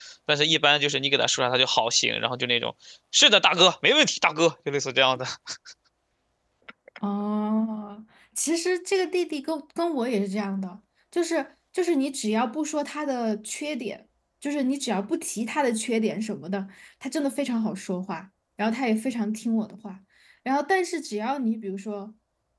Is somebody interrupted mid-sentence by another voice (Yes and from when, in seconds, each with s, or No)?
No